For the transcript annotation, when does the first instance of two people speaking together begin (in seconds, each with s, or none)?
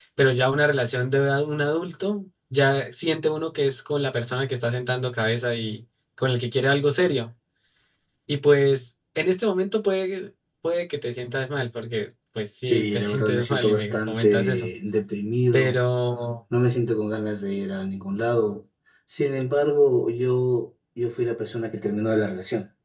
12.7 s